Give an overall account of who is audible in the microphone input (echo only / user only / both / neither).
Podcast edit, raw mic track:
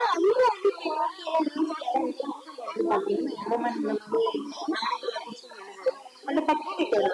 echo only